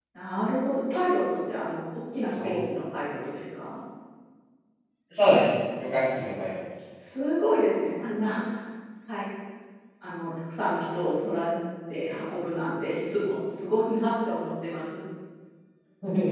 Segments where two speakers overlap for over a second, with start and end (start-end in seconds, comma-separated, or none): none